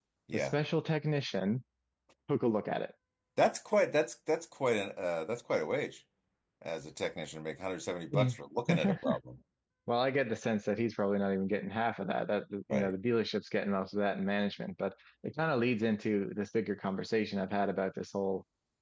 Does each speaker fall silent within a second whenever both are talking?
Yes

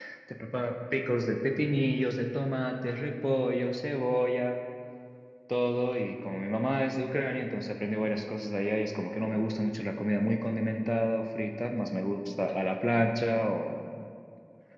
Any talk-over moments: No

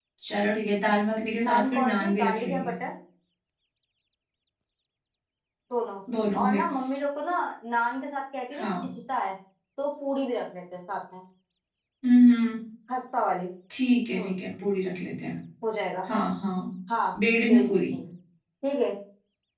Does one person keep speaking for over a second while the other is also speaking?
Yes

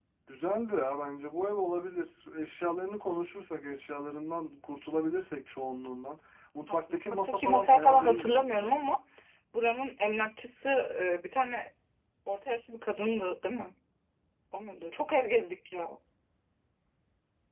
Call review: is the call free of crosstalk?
No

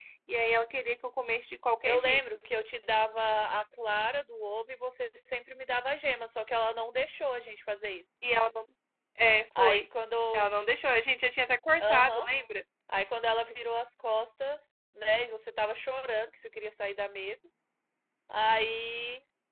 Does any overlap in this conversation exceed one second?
No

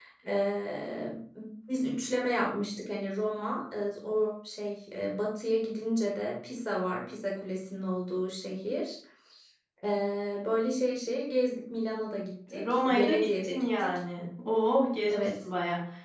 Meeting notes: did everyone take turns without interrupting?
No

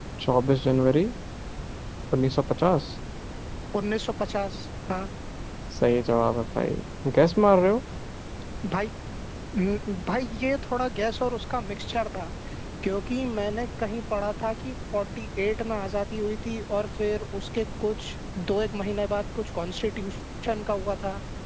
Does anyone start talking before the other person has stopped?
No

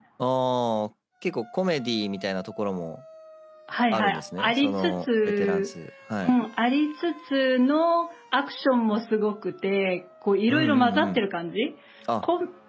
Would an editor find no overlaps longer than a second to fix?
No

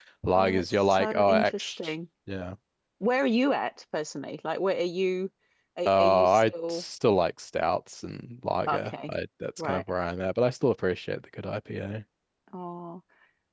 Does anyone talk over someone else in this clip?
Yes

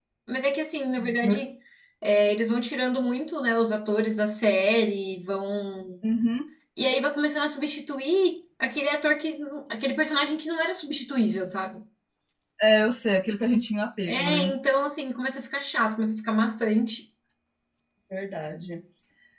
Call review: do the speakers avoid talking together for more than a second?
Yes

